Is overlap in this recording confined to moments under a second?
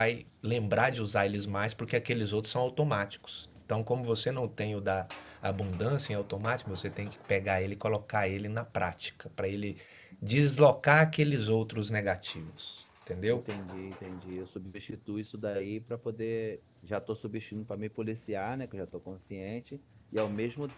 Yes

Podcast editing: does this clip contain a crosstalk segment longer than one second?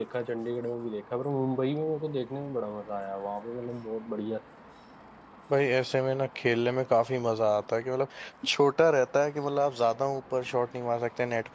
No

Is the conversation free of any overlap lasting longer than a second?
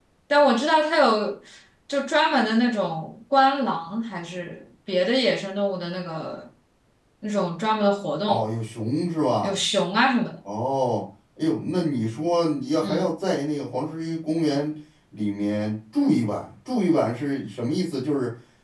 Yes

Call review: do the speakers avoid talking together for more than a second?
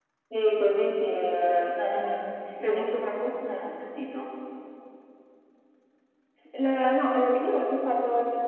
Yes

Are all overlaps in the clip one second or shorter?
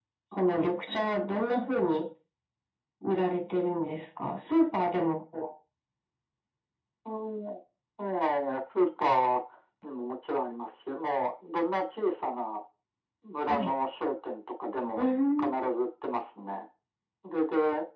Yes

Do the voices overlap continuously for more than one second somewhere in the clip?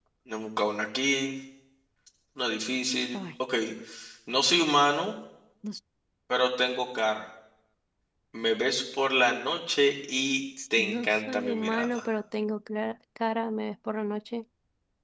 Yes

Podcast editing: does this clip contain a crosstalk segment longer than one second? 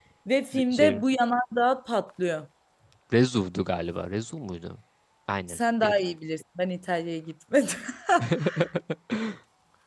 No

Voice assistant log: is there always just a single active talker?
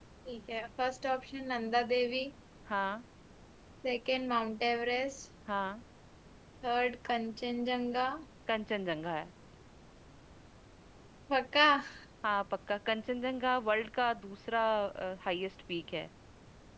Yes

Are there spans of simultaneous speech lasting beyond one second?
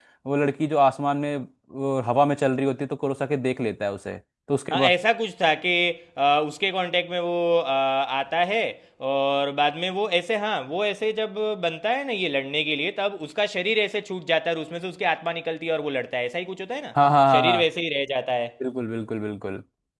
No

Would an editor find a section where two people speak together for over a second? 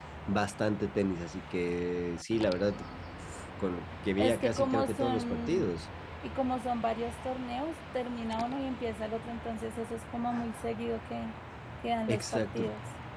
Yes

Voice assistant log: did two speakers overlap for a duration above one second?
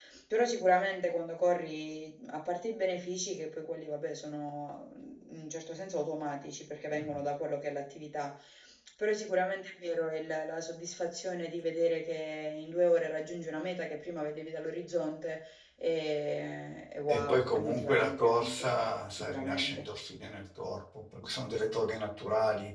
Yes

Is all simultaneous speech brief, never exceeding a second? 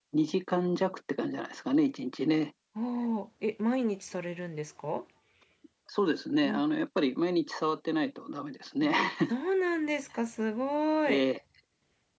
Yes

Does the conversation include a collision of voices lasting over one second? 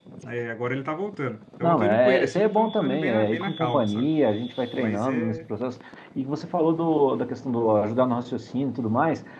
Yes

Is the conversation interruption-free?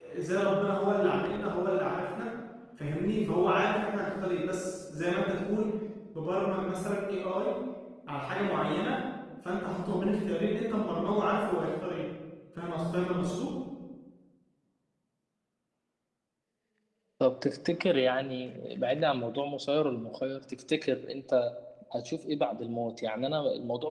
Yes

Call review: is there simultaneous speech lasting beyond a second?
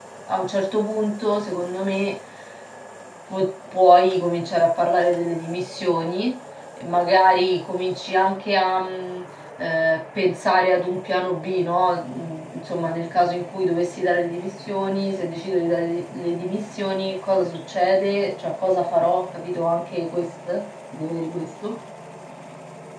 No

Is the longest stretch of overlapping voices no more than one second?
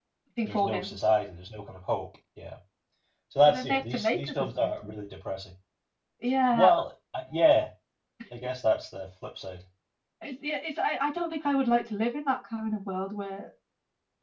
No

